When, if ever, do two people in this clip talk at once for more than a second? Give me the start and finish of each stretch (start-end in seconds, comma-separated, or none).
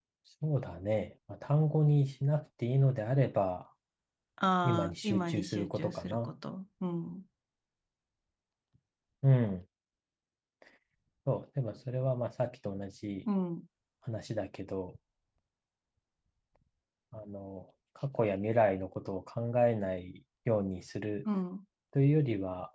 4.6-6.3